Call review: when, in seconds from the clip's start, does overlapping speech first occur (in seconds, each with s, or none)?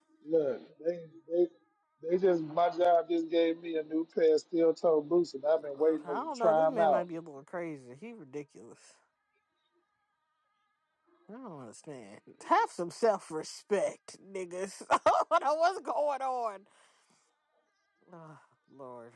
5.5 s